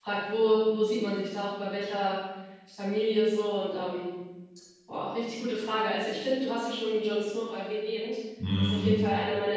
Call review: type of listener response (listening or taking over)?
listening